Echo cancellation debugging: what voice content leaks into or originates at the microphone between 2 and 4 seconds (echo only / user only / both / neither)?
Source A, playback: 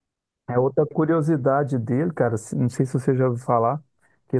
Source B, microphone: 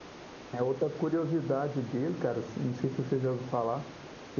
echo only